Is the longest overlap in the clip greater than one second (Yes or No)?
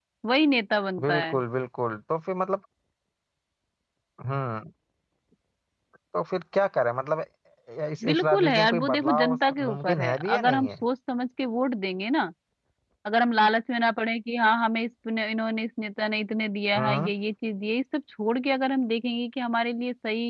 Yes